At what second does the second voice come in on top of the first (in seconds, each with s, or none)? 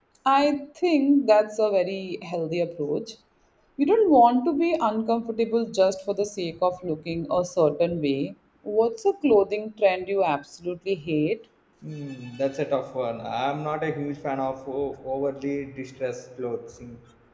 none